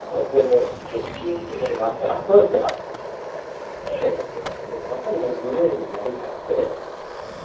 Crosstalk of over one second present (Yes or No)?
No